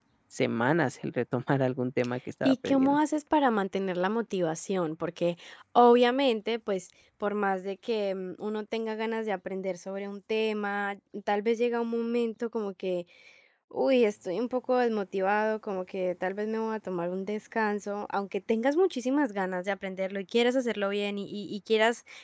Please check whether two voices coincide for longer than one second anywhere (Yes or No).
No